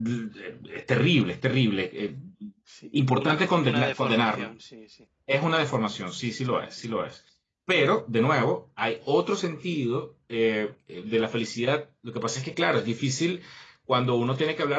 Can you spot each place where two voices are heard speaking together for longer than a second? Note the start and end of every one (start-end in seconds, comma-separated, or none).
3.0-4.5